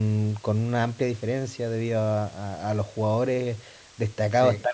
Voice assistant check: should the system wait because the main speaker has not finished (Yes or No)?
Yes